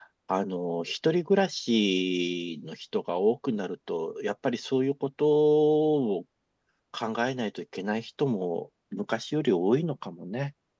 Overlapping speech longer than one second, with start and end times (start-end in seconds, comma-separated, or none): none